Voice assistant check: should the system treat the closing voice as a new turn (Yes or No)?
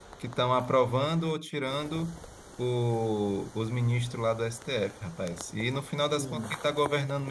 No